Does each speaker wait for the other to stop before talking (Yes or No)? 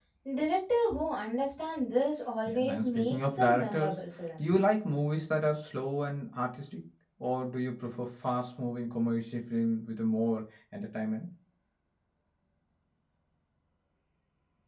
No